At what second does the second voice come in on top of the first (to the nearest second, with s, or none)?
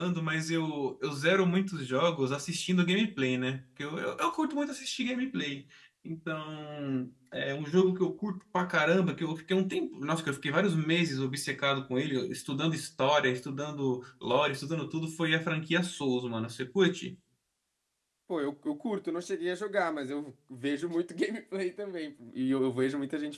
none